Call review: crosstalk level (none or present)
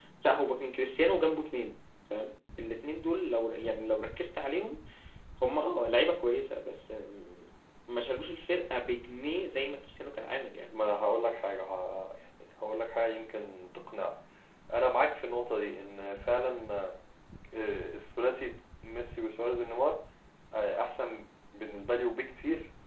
none